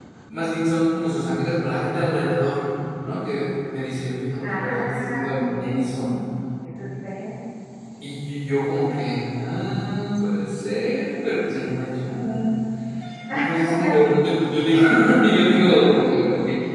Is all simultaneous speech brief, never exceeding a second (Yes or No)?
No